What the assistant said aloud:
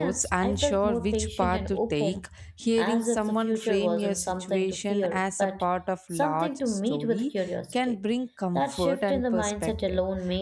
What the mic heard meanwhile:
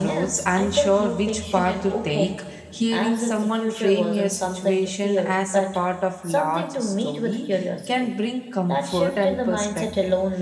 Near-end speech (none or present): none